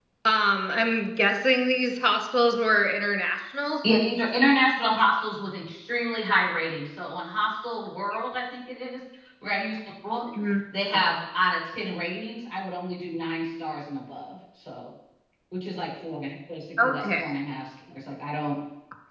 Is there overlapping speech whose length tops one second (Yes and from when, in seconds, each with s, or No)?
No